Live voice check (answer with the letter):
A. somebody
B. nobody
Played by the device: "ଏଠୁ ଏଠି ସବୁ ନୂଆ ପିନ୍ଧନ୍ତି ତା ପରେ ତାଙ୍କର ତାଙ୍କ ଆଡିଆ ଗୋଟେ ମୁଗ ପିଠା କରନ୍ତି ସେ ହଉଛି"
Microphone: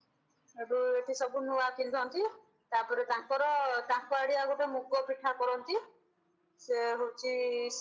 B